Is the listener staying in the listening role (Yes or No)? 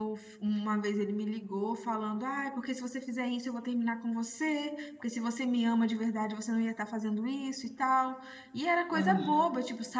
Yes